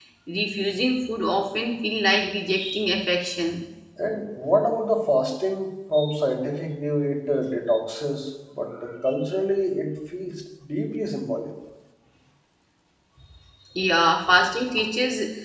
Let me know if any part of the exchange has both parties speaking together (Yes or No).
No